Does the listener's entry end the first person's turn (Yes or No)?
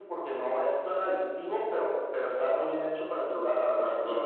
Yes